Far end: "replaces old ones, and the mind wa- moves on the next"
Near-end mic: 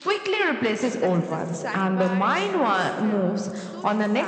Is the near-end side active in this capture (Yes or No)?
Yes